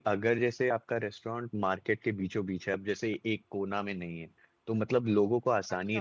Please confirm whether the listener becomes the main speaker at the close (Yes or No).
Yes